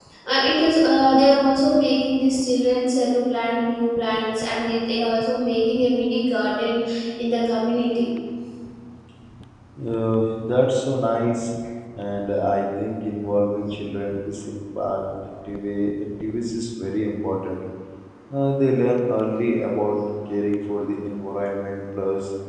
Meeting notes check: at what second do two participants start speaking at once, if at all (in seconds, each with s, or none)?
none